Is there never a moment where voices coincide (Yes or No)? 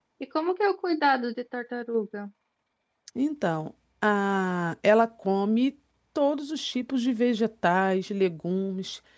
Yes